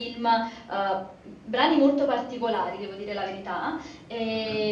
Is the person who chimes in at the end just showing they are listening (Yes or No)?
Yes